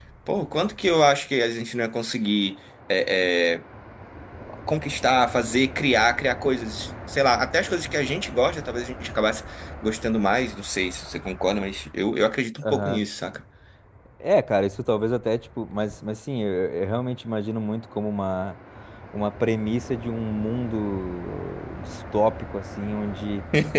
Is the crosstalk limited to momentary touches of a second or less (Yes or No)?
Yes